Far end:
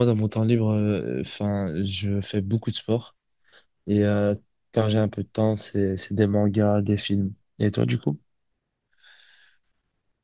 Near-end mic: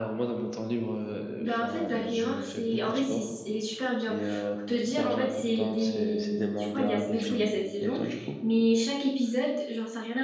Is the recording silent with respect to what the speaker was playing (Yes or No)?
No